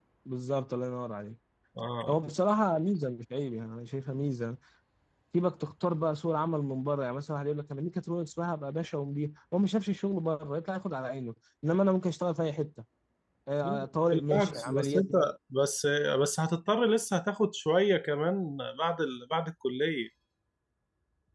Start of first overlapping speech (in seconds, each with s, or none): 13.6 s